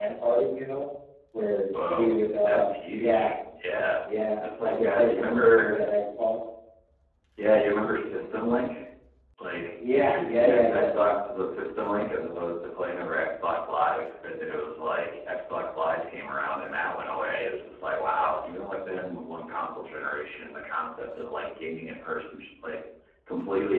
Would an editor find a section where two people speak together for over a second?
Yes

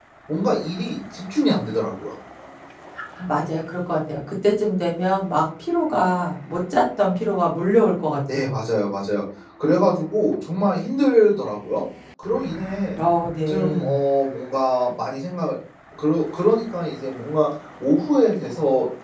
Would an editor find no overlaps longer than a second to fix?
Yes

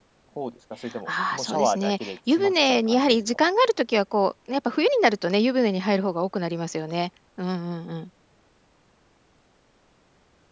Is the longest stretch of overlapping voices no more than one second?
No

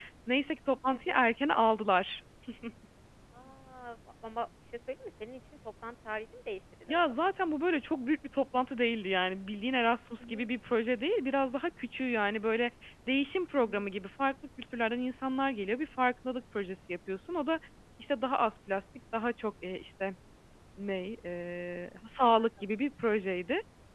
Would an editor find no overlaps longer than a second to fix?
Yes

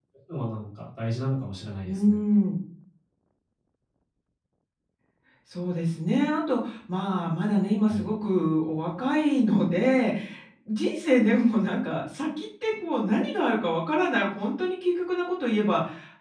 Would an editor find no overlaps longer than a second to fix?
Yes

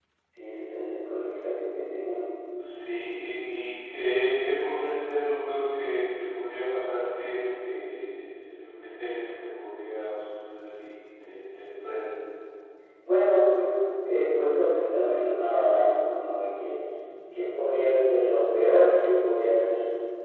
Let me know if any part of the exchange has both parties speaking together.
No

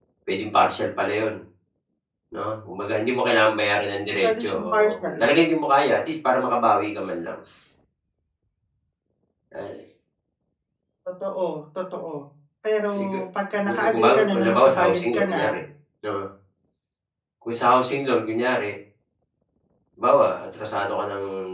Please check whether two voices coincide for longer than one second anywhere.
Yes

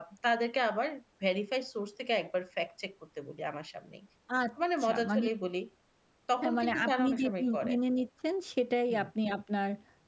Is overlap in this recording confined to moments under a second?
No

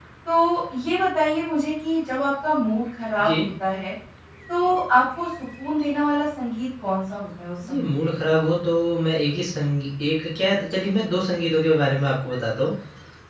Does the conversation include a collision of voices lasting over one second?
No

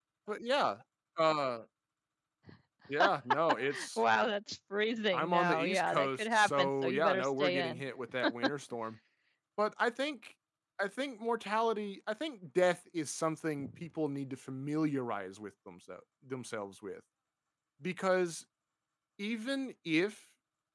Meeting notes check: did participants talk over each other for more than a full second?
Yes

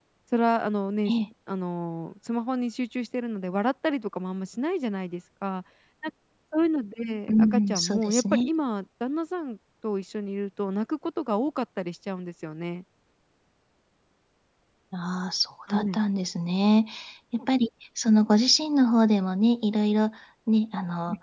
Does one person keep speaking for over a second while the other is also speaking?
Yes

